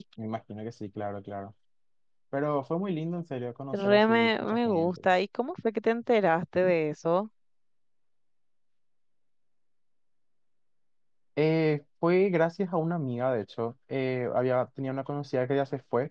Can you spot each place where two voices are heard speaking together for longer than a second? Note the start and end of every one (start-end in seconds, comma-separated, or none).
3.7-5.0